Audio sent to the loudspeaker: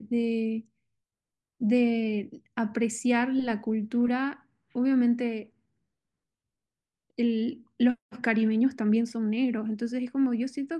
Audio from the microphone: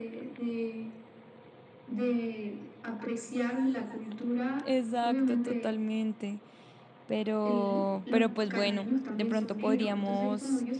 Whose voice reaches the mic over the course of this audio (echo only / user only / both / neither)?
both